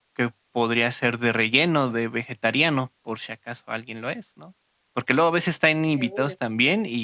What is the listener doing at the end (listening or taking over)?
listening